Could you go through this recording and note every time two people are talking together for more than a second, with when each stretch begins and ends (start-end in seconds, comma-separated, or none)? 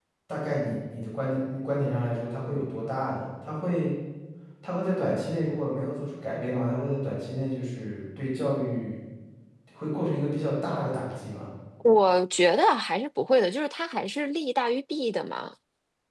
none